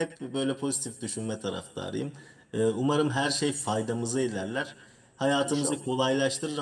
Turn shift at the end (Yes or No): No